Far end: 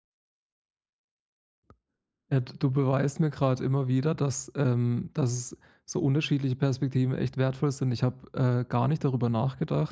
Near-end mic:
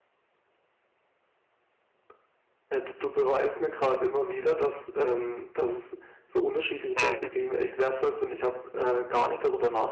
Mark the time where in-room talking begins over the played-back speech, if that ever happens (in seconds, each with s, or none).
6.9 s